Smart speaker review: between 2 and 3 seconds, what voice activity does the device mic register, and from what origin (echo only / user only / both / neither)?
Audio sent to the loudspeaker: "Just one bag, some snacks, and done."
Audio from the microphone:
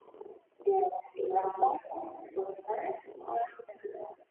echo only